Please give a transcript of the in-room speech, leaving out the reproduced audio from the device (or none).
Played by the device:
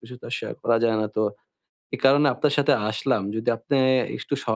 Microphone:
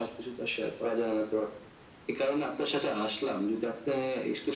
none